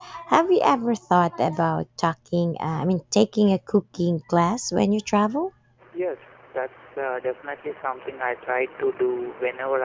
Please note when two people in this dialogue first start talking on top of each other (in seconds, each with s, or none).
none